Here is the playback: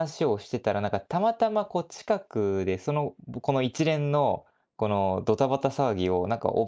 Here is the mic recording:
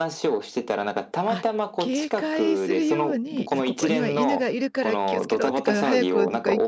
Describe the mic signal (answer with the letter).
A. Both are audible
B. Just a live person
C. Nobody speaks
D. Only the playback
A